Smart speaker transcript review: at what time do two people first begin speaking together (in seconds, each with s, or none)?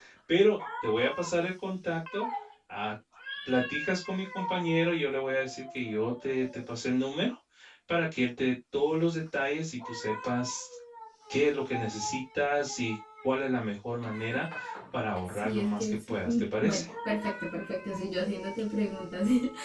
15.2 s